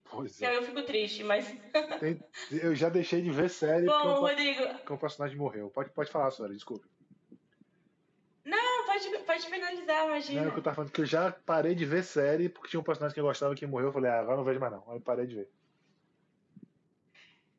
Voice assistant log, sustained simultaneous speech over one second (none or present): none